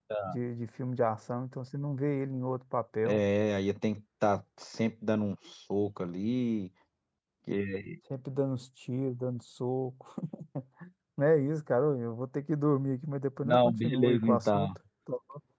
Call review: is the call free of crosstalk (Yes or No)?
No